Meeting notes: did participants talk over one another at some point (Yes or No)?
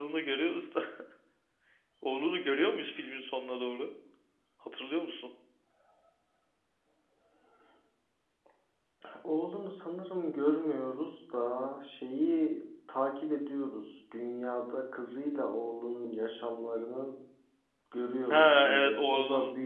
Yes